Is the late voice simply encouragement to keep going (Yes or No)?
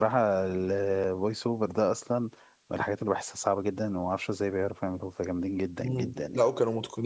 No